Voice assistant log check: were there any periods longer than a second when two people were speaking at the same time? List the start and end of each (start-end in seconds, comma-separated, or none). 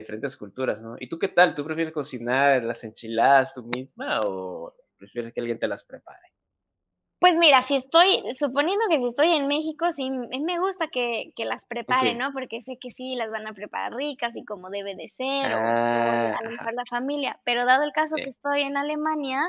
15.4-16.7